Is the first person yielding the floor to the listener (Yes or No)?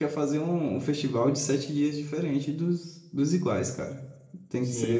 Yes